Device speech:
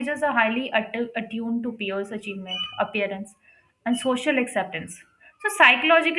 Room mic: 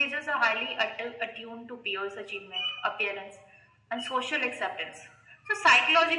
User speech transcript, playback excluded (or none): none